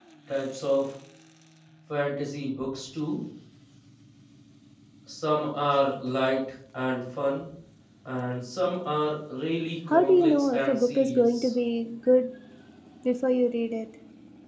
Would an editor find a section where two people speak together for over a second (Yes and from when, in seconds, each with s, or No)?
Yes, from 9.9 s